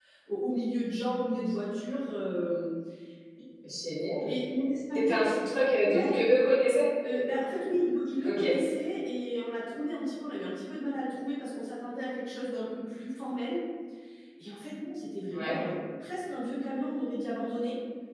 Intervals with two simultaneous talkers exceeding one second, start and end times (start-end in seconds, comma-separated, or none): none